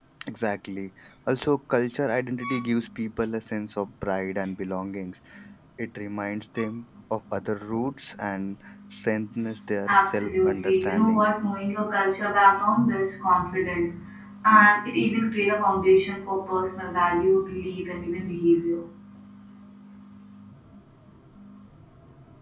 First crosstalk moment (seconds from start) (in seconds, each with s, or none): 9.9 s